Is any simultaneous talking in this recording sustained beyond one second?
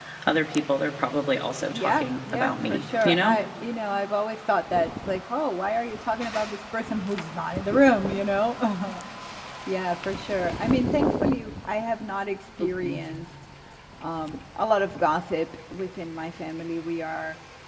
Yes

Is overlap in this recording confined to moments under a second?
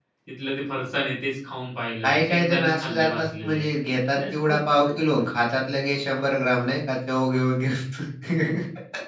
No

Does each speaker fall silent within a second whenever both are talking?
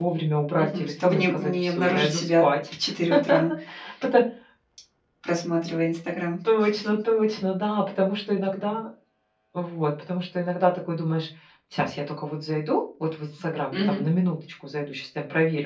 No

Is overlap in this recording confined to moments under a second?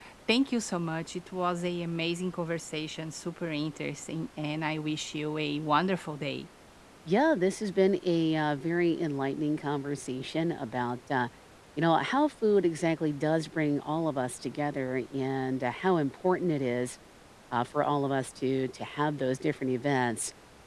Yes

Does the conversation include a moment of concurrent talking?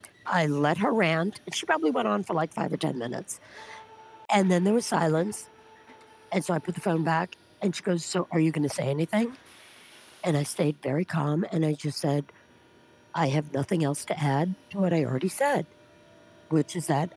No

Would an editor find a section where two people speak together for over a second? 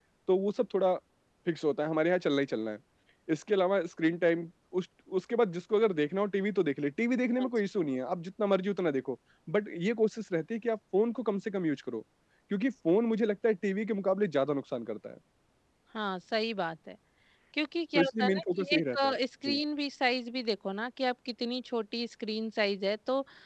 Yes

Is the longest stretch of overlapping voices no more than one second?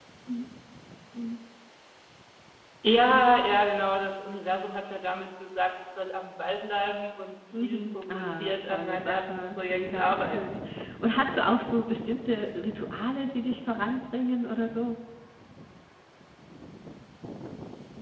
No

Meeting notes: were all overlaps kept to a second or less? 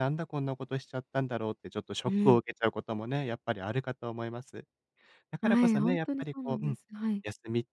No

